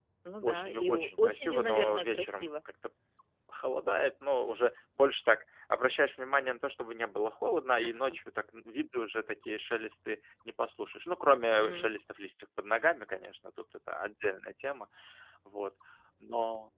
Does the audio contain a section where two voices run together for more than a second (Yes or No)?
Yes